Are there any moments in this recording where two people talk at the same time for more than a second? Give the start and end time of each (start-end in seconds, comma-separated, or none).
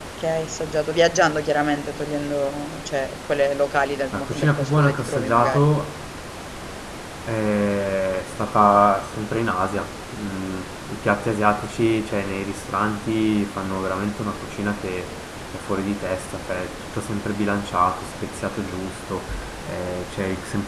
4.1-5.7